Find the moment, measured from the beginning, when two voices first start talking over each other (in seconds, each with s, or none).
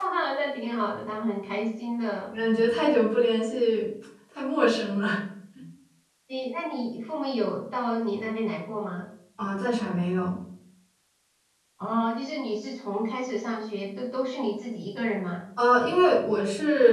none